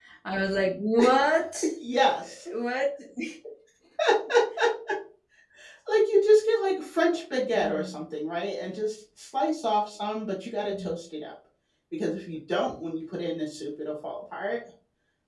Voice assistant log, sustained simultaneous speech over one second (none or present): none